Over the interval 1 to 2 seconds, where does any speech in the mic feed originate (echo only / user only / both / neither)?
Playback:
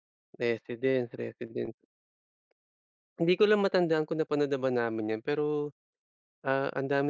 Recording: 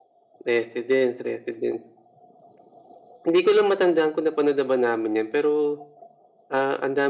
echo only